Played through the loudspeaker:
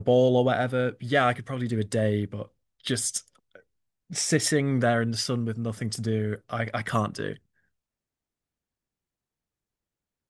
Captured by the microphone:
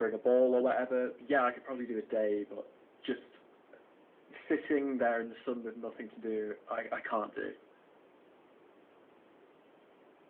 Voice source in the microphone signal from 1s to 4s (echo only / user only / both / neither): echo only